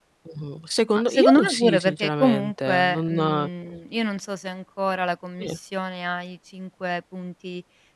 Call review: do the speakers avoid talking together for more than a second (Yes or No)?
No